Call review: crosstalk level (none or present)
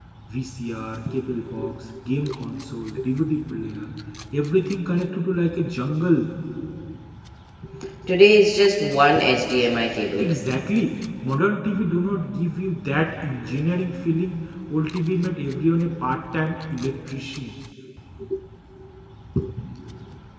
none